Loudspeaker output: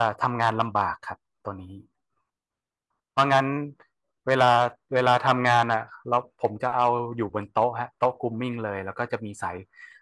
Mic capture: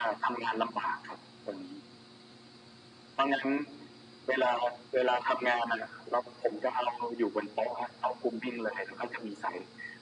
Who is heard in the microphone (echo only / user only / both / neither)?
echo only